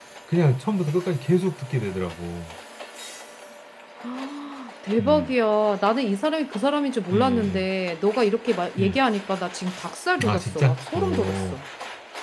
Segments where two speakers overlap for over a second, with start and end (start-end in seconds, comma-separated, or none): 10.2-11.6